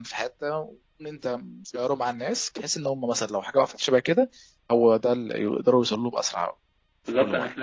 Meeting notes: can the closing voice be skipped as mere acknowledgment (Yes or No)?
No